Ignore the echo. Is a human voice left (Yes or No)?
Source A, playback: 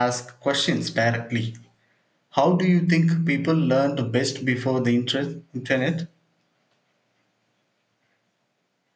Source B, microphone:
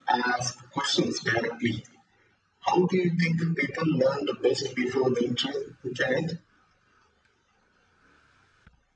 No